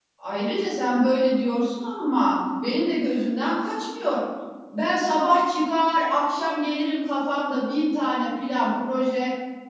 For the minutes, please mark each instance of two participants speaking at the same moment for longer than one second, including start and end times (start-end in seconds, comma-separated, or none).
none